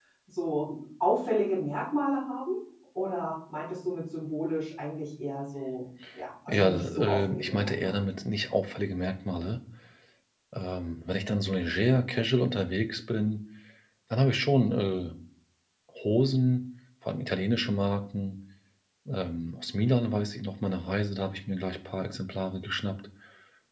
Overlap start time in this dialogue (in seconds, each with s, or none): 6.5 s